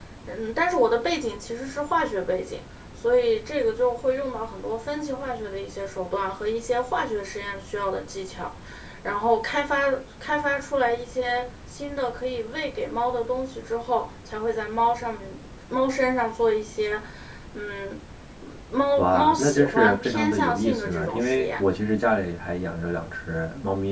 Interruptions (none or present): present